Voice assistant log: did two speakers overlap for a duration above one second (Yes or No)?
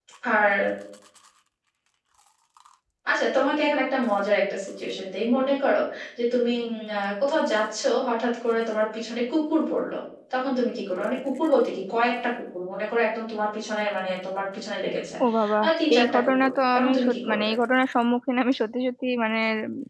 Yes